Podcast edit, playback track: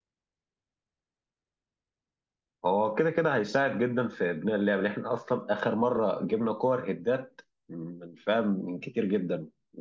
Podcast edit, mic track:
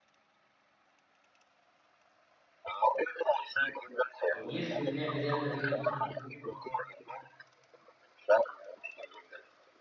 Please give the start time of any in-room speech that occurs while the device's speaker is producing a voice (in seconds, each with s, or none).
4.3 s